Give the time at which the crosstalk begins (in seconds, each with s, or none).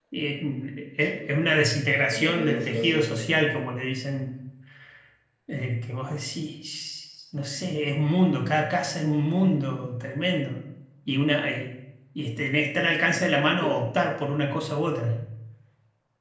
1.0 s